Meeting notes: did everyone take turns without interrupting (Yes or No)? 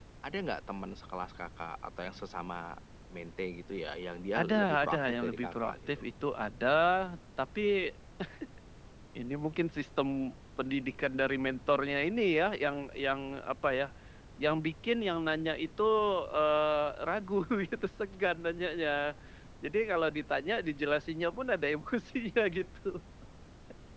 No